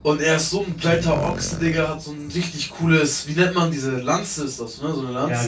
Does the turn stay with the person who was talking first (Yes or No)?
No